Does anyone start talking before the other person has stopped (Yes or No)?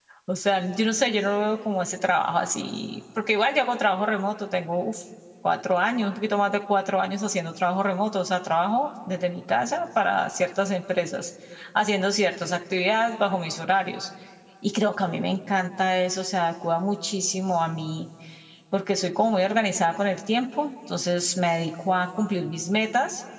No